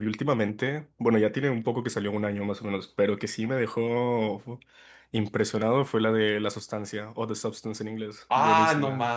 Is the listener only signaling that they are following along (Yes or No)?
No